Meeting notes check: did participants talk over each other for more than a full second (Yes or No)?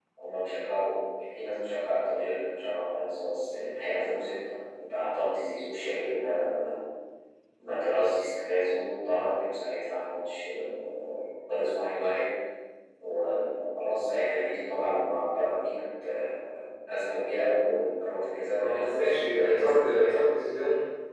Yes